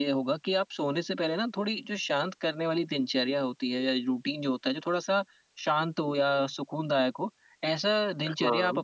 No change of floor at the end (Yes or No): Yes